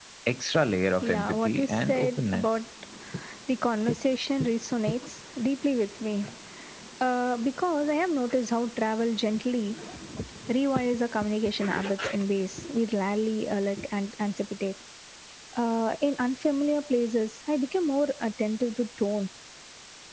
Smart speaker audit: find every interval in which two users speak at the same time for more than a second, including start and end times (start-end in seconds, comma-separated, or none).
1.0-2.5